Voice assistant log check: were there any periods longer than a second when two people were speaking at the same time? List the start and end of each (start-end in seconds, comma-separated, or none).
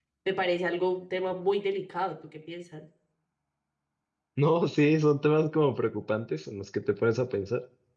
none